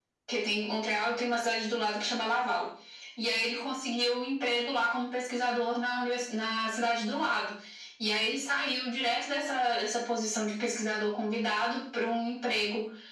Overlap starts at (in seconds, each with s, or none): none